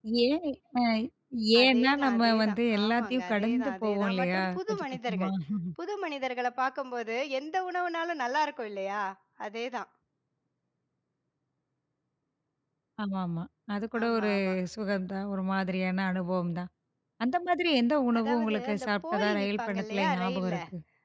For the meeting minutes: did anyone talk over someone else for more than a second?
Yes, from 1.6 s

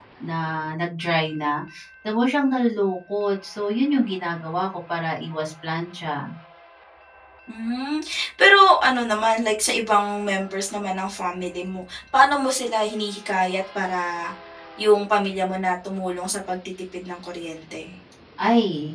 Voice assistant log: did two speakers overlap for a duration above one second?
No

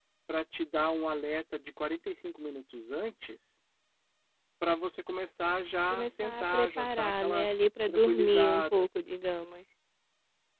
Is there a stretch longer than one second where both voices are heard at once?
Yes, from 5.9 s

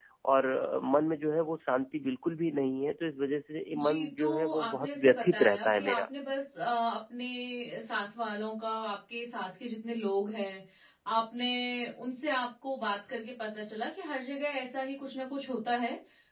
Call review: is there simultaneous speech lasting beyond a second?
Yes, from 3.7 s

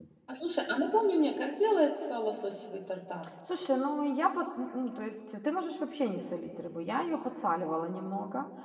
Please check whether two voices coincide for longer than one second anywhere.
No

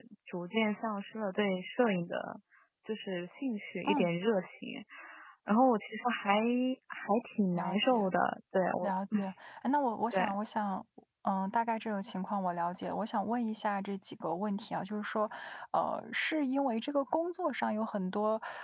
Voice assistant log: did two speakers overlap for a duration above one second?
No

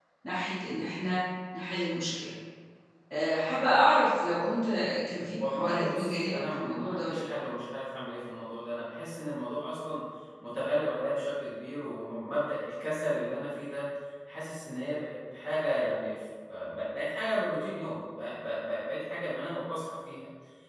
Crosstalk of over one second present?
Yes, from 5.4 s

